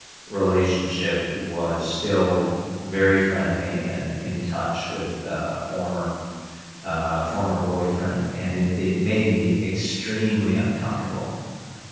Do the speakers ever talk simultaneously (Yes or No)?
No